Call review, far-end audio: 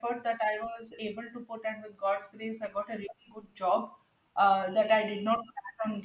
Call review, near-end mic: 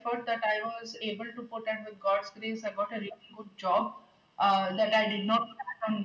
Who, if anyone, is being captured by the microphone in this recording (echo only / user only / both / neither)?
echo only